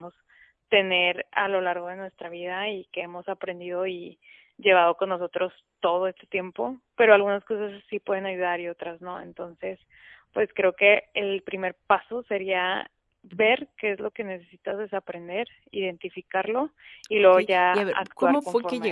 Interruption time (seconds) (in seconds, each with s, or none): 17.3 s